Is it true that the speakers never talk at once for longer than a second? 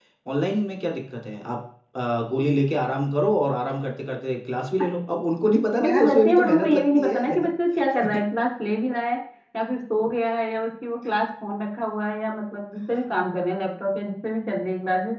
No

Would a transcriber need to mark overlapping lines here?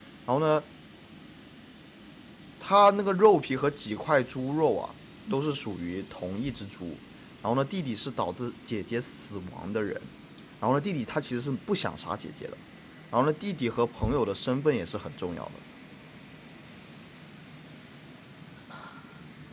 No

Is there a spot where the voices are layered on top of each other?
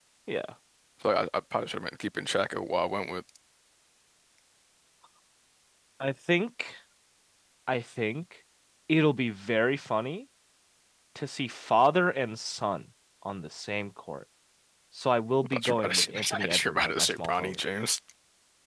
Yes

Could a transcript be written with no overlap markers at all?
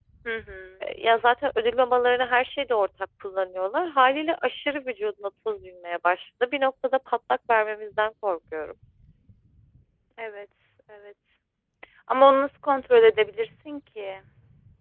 Yes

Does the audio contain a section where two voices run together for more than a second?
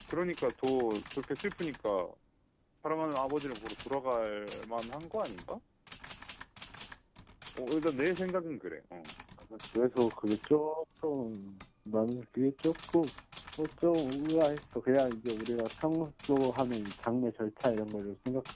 No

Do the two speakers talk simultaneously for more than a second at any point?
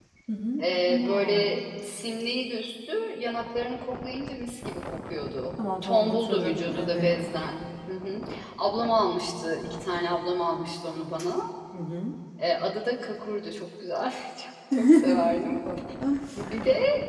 Yes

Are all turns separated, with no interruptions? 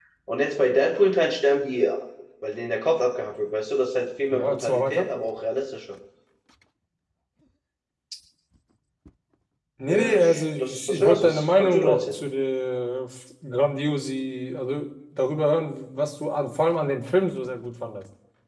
No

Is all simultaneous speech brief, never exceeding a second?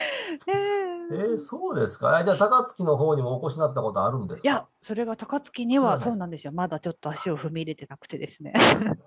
Yes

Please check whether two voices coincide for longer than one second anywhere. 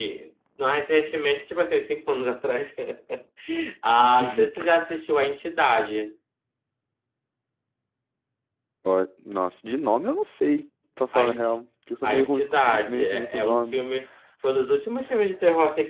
Yes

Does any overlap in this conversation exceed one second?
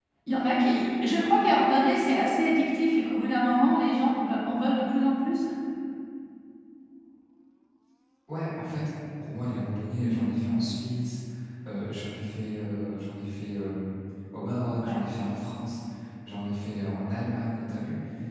No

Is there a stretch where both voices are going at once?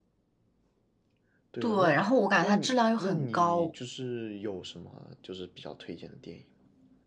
Yes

